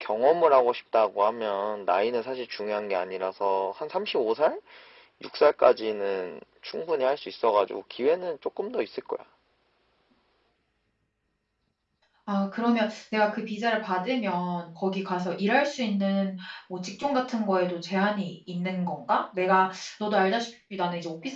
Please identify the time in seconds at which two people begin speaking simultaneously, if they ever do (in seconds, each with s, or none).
none